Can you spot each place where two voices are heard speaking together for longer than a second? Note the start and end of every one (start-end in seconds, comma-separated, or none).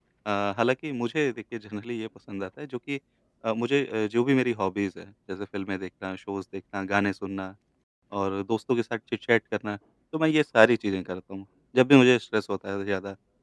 none